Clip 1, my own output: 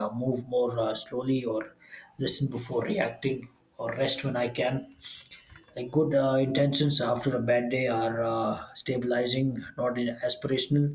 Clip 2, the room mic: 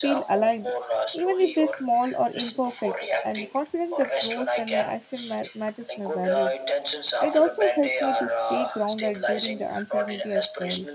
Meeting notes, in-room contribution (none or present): present